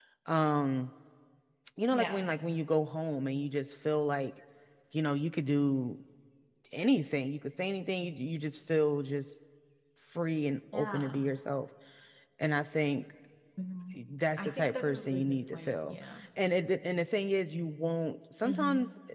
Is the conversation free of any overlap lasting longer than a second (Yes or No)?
No